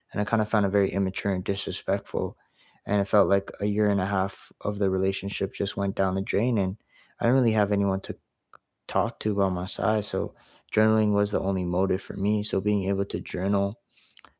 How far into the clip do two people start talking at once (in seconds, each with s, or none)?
none